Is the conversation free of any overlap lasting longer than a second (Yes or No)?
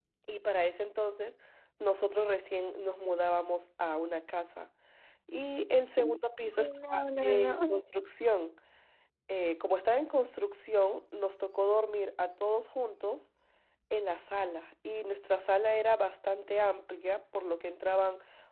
No